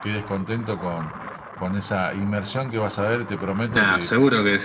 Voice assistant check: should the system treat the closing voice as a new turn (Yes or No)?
Yes